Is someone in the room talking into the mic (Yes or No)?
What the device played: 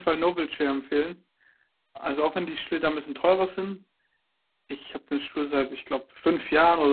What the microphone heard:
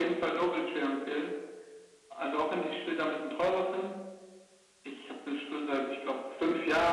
No